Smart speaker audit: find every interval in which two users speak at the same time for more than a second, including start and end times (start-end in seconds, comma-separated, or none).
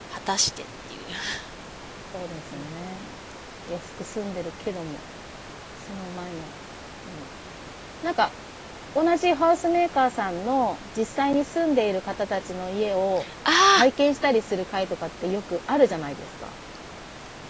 none